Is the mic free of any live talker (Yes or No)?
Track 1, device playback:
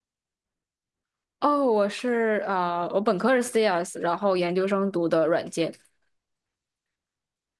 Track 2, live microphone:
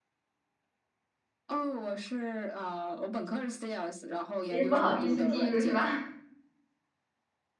No